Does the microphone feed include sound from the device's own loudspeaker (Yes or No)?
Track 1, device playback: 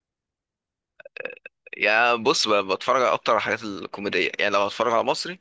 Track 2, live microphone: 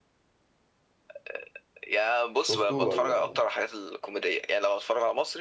Yes